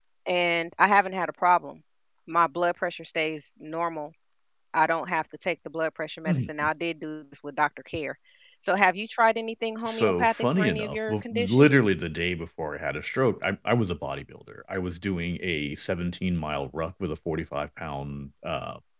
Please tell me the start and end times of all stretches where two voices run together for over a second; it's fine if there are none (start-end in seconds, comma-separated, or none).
9.8-11.7